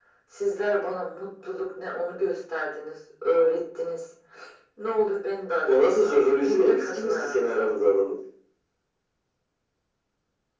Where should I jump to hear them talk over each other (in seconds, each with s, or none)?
5.7 s